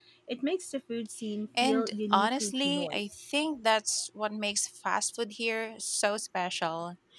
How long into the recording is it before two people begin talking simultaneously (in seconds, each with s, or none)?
1.6 s